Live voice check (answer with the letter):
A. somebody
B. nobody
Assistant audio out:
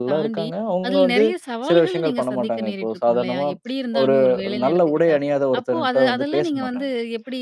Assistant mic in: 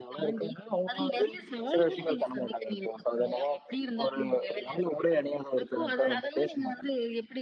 B